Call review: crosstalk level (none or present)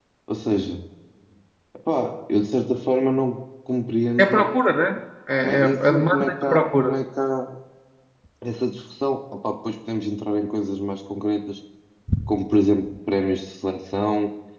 present